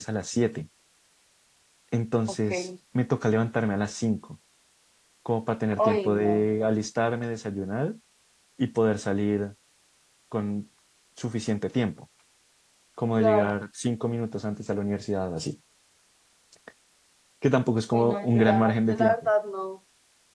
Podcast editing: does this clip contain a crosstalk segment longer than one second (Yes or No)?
Yes